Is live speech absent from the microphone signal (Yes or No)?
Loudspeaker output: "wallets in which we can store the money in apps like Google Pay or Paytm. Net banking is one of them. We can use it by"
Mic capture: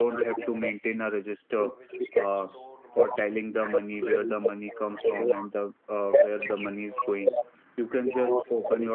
No